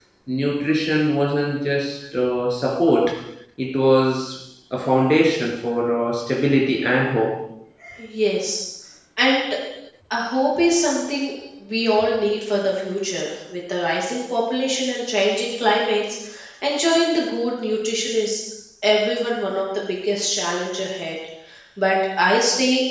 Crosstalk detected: No

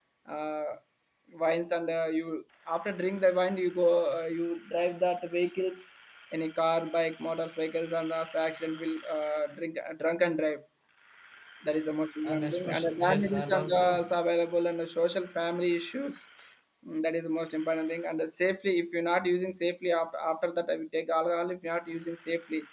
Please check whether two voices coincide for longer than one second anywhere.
Yes, from 12.2 s

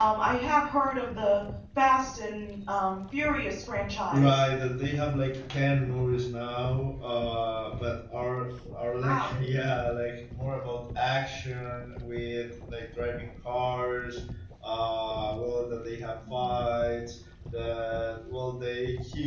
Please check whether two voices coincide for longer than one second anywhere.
No

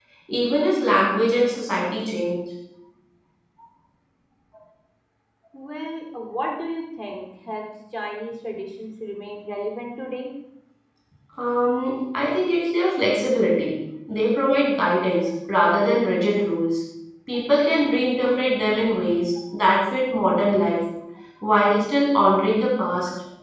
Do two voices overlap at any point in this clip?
No

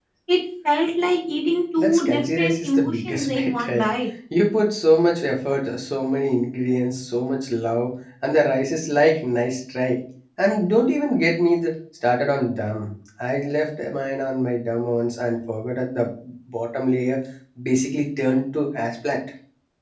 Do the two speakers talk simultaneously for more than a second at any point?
Yes, from 1.8 s

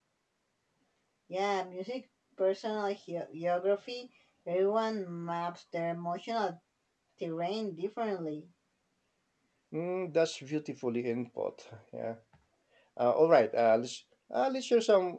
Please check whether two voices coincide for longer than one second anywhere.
No

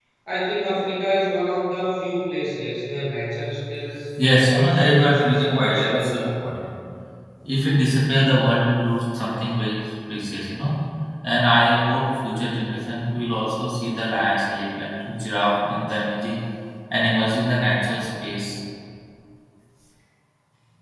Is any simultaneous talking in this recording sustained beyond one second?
Yes, from 4.5 s

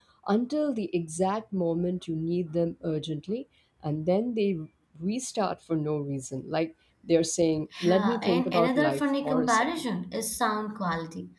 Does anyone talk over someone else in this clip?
Yes, from 7.7 s

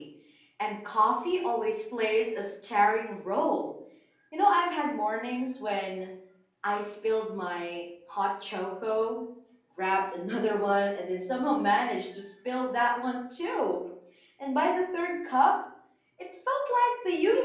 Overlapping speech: No

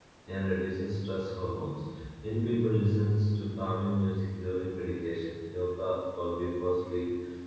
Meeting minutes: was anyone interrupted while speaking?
No

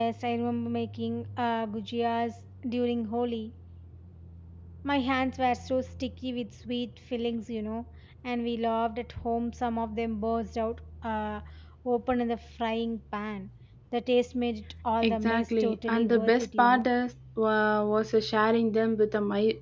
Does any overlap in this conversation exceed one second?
Yes, from 15.0 s

